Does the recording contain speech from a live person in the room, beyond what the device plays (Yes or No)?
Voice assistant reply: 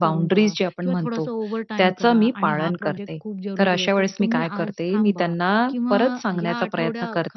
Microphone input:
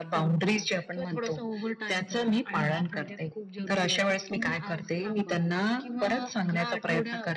No